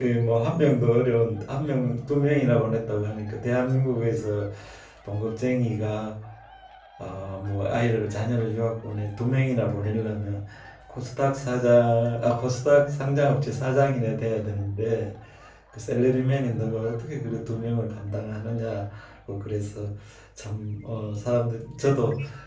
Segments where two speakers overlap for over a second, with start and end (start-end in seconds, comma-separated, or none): none